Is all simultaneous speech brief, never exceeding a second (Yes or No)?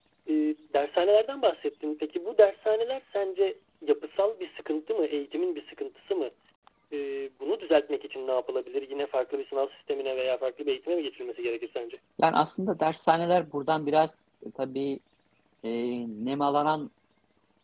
Yes